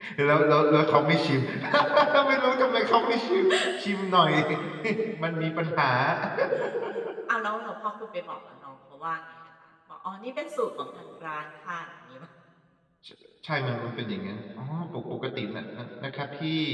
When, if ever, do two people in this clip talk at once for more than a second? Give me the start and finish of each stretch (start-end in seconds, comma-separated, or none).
none